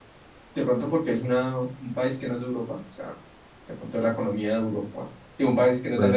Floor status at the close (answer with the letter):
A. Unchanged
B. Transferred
A